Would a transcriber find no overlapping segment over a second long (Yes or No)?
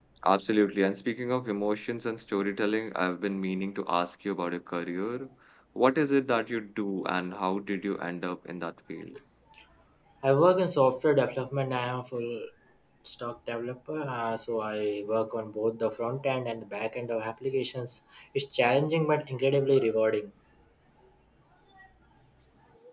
Yes